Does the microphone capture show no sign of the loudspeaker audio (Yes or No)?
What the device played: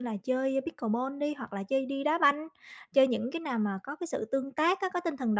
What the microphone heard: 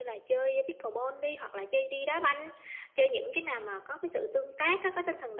No